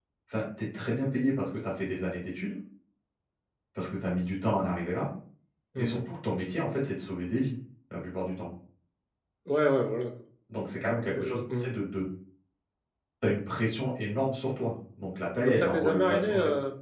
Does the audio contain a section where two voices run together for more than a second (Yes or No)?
Yes